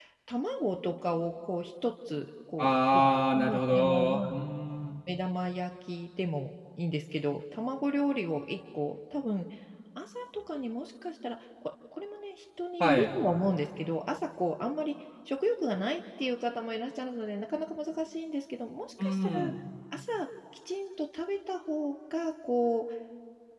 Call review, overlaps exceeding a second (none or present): present